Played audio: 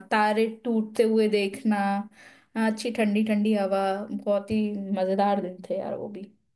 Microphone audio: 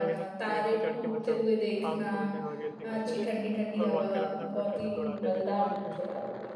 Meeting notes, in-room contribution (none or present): present